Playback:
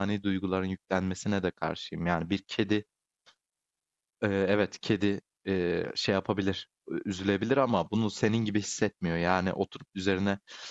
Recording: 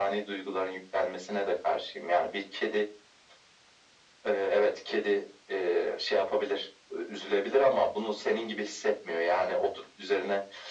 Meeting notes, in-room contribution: none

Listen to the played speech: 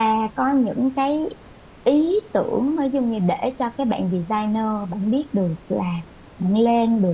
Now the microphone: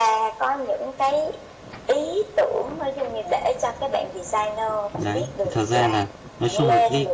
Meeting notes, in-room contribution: present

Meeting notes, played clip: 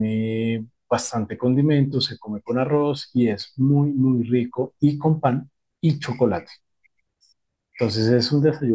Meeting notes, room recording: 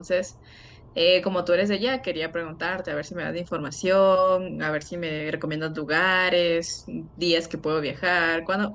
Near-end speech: present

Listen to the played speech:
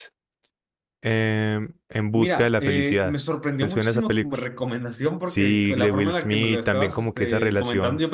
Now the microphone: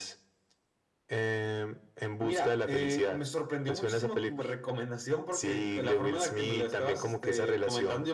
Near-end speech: none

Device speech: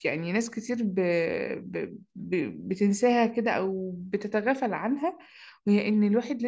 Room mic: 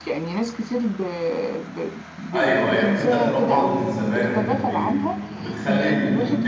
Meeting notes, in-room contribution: present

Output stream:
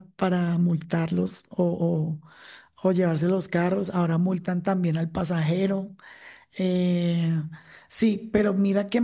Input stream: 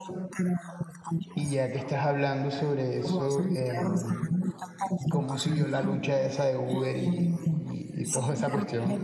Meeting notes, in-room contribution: present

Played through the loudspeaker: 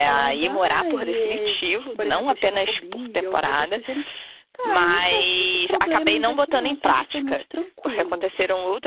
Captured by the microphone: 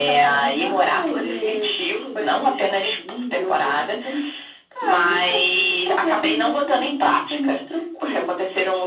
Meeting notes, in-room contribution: none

